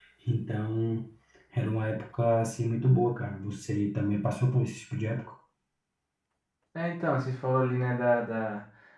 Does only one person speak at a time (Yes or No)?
Yes